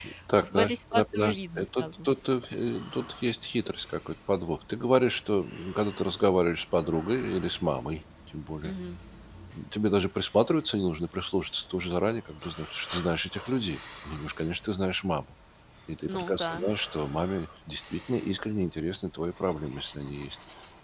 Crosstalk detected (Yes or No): Yes